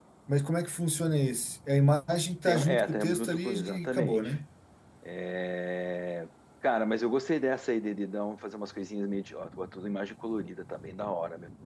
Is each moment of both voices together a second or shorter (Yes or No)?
No